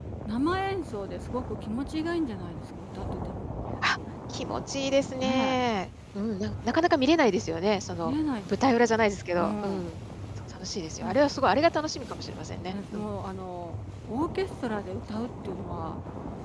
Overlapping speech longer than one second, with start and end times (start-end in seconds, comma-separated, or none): none